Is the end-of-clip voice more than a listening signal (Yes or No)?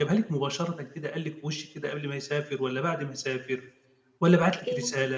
No